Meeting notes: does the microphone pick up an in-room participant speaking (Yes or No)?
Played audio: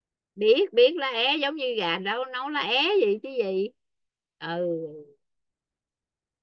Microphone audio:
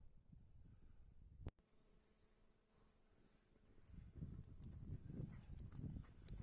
No